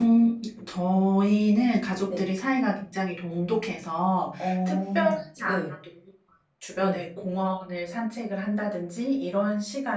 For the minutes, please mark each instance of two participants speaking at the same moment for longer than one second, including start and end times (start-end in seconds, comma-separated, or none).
4.4-5.6